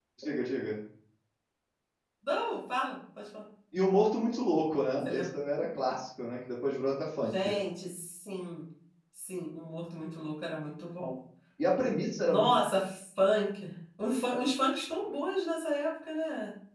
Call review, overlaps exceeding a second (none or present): none